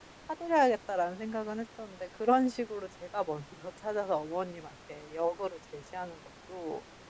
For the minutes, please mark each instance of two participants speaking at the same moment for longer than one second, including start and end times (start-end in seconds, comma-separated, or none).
none